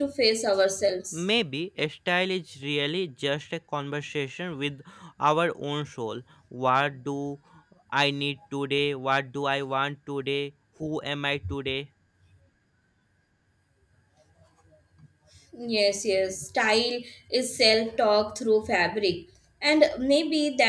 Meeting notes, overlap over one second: none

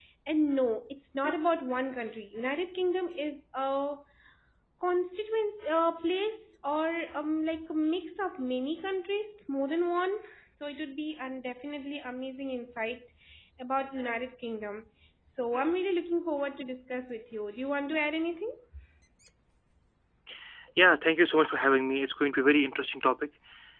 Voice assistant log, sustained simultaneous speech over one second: none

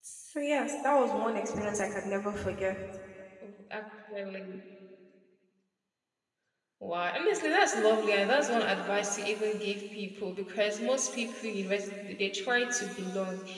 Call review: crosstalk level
none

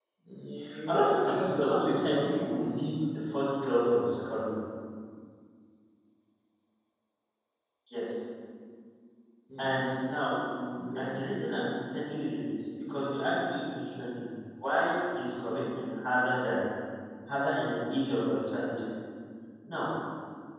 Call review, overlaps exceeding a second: present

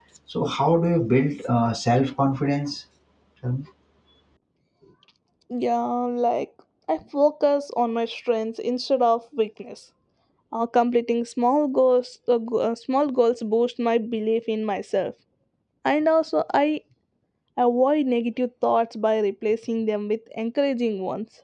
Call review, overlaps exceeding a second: none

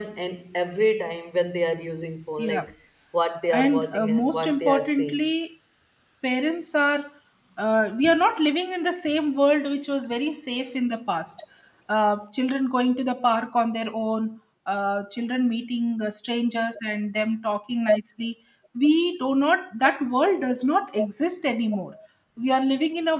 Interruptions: present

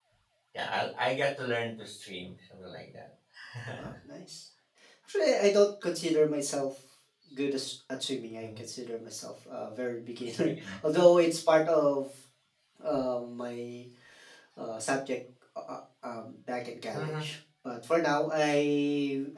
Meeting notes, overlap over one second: none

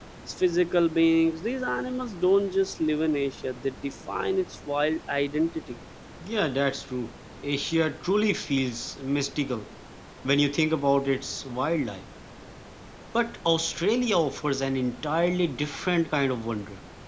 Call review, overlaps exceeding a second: none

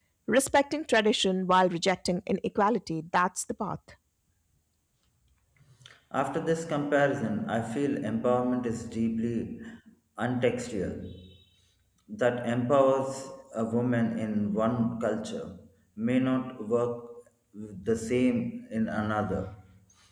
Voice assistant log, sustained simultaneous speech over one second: none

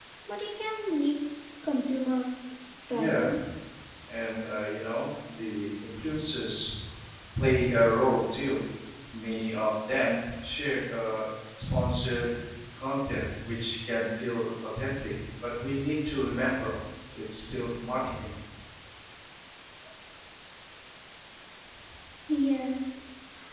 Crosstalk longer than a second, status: none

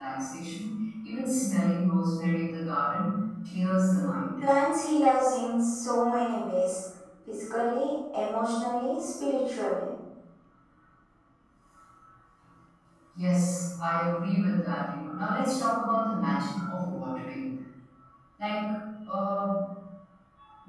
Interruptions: none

